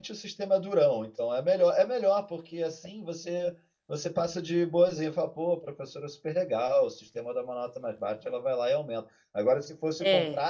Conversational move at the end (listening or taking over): listening